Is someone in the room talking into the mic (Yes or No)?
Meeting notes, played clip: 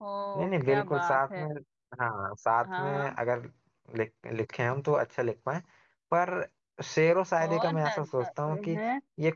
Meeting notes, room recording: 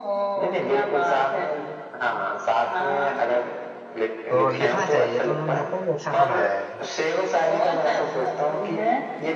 Yes